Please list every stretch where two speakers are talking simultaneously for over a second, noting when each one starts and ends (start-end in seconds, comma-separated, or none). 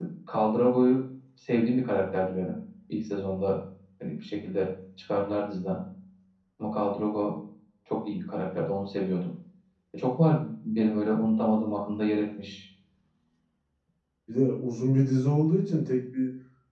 none